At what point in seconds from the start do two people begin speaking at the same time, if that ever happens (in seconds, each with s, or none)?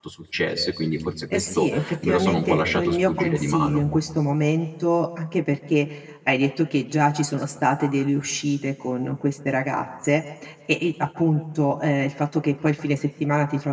1.3 s